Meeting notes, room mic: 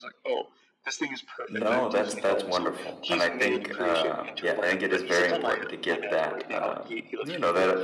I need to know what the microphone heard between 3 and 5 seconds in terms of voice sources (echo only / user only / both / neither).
both